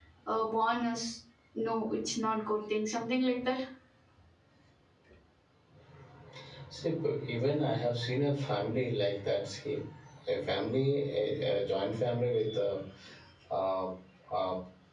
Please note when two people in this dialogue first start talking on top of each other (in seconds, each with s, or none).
none